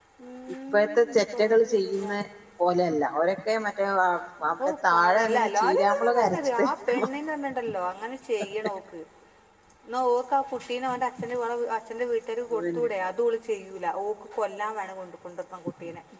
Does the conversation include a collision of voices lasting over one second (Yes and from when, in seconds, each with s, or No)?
Yes, from 0.7 s